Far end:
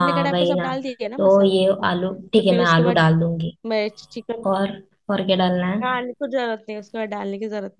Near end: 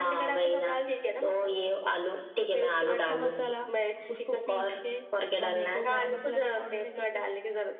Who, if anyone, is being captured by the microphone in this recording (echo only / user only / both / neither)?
both